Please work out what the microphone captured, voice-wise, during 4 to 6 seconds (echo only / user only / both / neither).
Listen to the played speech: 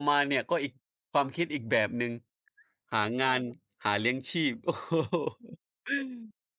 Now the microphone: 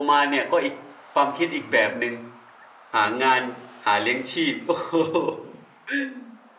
echo only